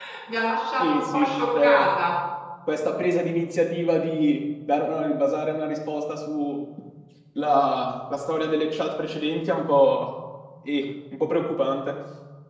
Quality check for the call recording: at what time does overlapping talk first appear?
0.8 s

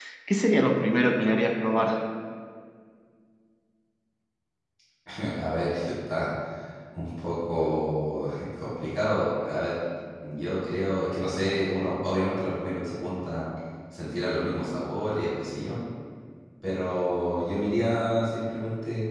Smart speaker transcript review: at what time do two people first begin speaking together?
none

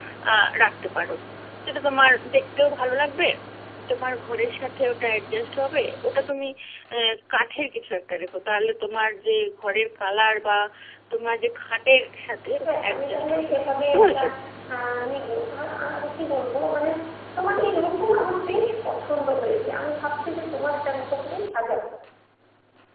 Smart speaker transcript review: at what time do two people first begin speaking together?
12.6 s

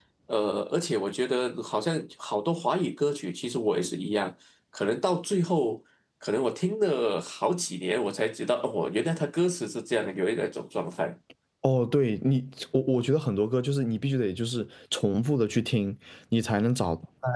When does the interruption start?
none

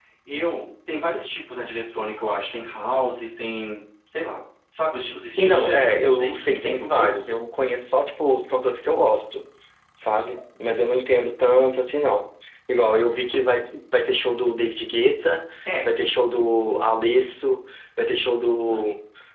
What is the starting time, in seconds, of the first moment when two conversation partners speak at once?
5.4 s

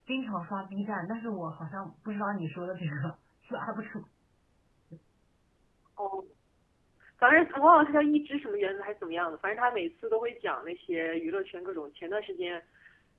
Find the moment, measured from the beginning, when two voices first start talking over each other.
none

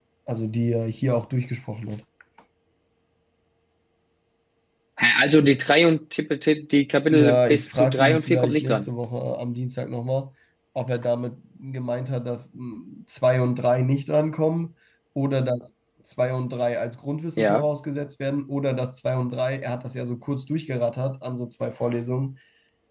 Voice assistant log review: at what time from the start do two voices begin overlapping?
7.1 s

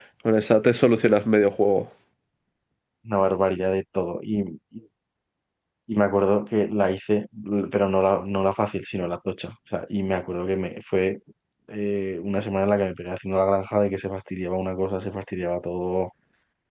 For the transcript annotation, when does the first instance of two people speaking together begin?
none

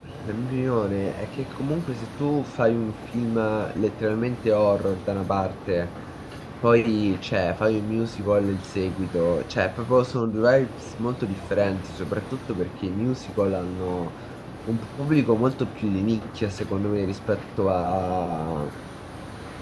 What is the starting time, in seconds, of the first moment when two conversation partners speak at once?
none

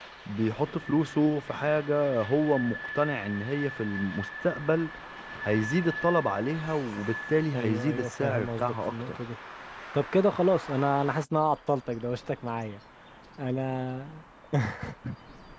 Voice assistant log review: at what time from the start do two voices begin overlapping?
7.5 s

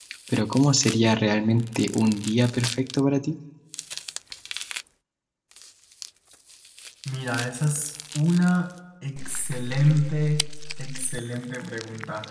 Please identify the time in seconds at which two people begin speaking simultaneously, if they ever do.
none

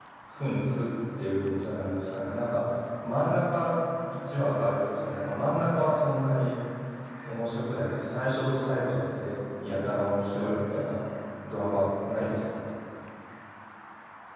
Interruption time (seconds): none

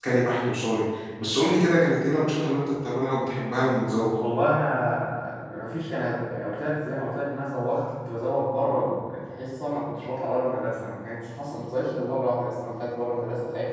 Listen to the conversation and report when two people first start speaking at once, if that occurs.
none

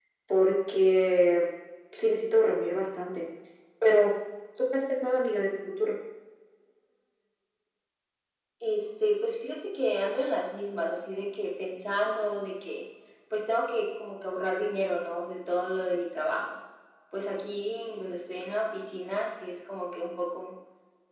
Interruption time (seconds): none

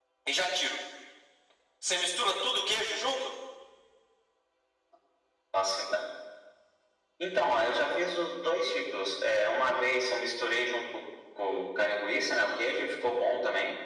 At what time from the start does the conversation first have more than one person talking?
none

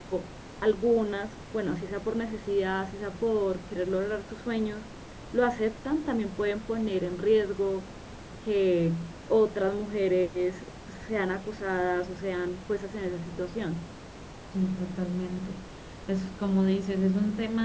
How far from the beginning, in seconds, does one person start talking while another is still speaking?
none

